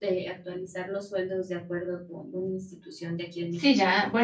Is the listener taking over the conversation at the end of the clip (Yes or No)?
Yes